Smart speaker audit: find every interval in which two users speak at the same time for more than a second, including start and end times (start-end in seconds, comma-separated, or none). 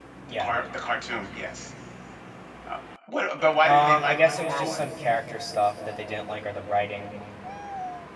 3.6-4.9